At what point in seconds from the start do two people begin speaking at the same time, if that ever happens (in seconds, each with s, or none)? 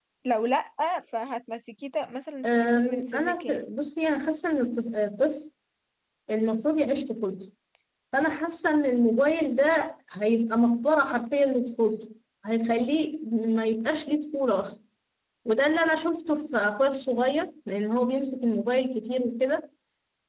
2.4 s